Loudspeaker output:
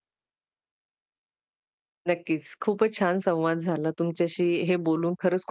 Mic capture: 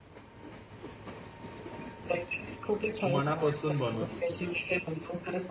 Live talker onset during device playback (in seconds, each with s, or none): 3.1 s